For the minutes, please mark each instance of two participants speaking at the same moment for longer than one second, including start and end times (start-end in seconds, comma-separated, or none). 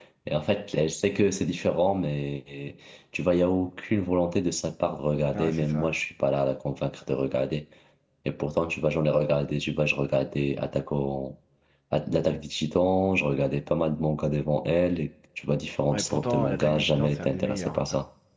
15.9-17.8